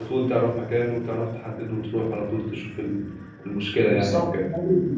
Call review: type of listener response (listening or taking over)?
taking over